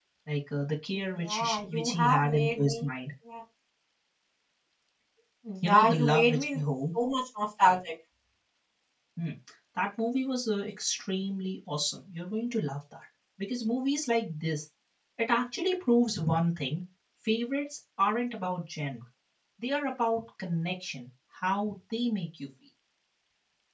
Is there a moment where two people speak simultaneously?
Yes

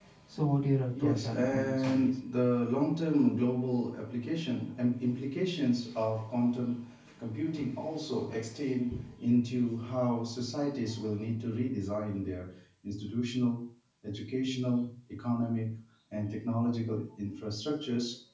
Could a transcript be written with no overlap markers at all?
No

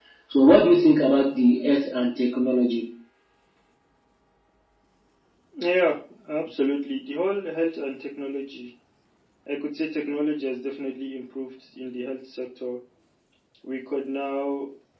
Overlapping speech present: No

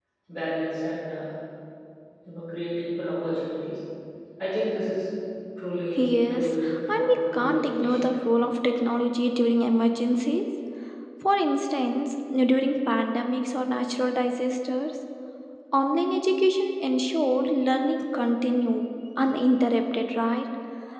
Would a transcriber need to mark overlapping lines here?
Yes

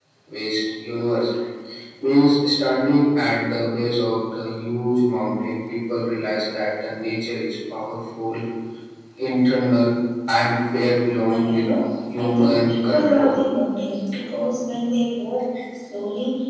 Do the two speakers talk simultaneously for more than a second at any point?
Yes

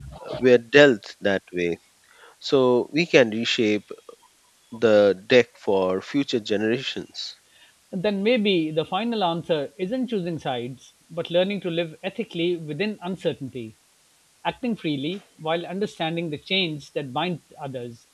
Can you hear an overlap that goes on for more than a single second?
No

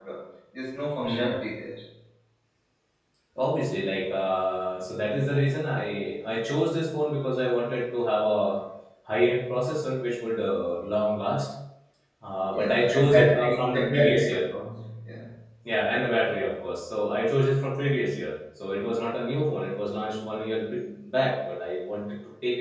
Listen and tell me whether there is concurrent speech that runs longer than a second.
Yes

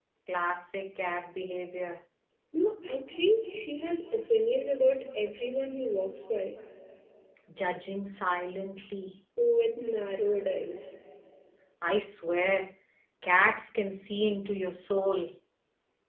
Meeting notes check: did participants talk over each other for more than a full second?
No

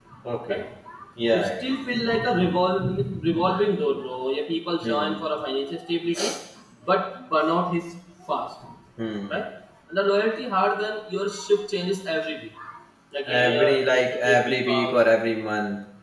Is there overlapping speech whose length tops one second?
Yes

